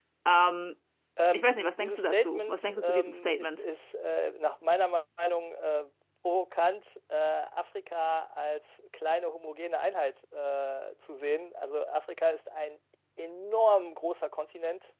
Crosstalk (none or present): present